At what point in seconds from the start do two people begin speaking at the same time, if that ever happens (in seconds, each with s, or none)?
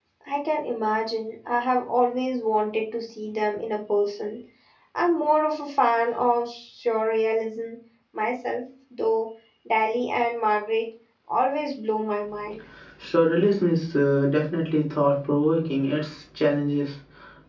none